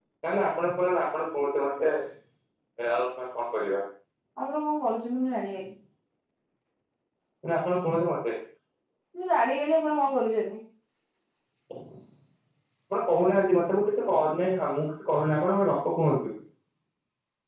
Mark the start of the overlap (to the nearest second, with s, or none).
none